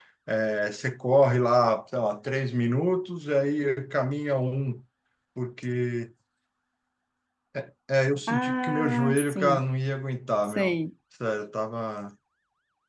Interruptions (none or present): present